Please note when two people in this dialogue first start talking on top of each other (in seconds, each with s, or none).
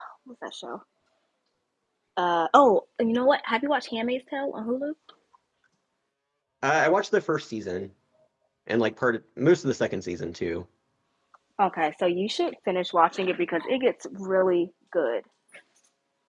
none